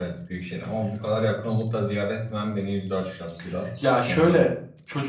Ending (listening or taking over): taking over